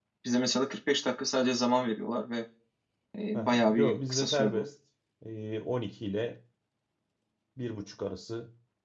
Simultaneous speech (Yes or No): Yes